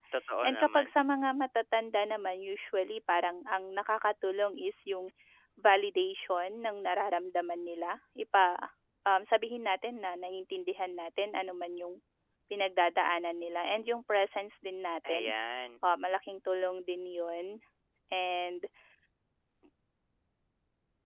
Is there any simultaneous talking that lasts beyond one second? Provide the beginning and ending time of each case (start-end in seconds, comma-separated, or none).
none